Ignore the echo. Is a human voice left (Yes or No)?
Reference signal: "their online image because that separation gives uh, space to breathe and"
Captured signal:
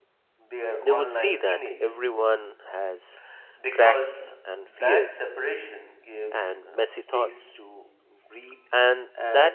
Yes